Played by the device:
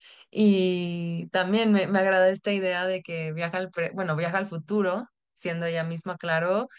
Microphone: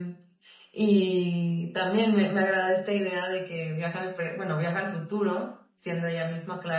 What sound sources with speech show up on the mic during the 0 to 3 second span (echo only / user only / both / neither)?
echo only